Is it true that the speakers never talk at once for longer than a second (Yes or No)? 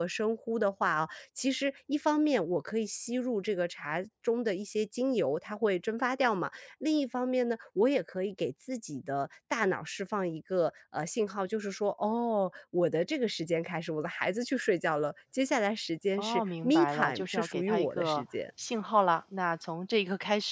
No